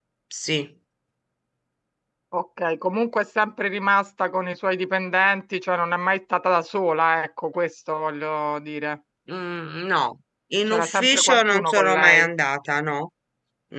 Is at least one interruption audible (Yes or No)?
Yes